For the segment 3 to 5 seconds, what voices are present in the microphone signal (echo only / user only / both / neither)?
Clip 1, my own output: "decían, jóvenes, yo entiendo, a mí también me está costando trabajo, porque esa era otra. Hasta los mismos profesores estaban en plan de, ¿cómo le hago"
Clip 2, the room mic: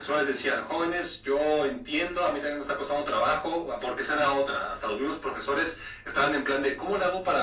echo only